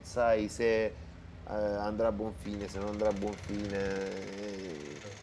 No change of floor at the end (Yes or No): Yes